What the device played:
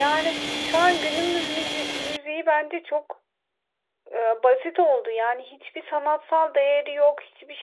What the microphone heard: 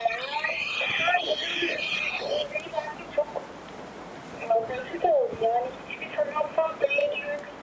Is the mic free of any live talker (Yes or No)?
Yes